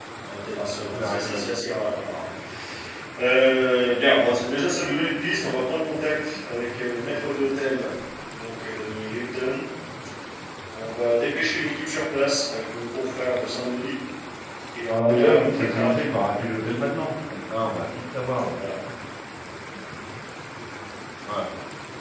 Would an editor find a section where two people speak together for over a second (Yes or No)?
Yes